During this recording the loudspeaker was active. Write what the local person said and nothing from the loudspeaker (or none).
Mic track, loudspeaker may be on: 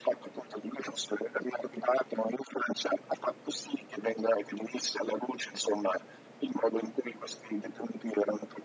none